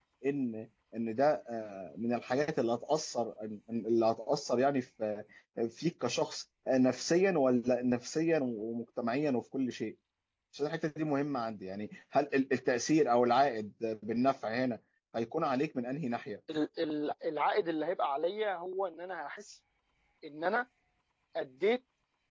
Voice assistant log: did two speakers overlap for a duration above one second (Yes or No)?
No